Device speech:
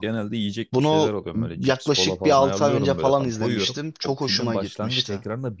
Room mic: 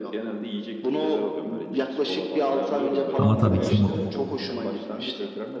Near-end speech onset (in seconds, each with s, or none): 3.2 s